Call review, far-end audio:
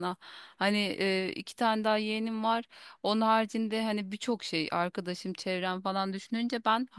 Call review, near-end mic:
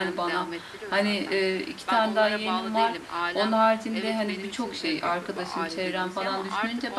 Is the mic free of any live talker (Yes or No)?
No